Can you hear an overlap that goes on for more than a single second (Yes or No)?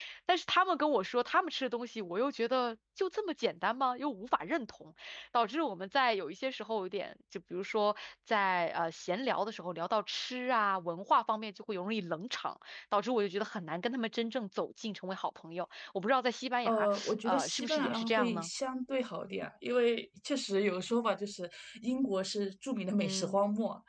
Yes